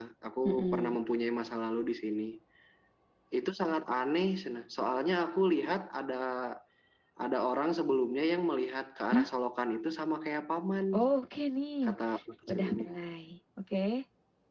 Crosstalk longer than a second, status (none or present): none